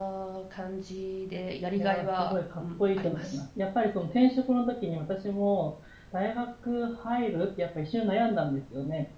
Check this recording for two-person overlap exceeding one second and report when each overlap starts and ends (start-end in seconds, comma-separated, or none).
1.8-3.4